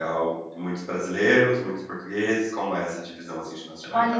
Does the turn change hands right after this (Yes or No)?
Yes